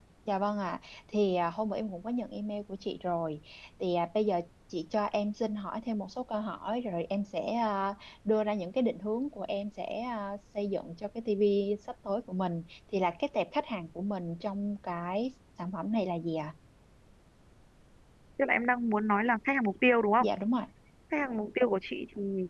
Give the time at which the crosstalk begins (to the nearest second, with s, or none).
none